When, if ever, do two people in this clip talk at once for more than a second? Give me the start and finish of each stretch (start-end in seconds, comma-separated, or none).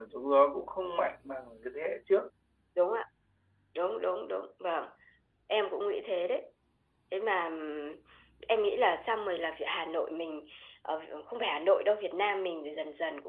none